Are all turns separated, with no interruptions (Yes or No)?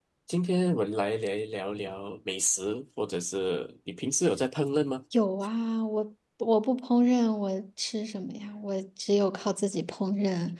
Yes